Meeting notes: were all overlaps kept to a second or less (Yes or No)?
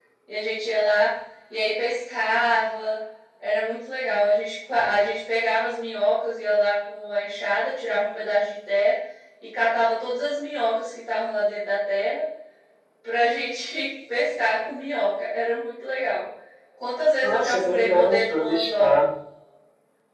No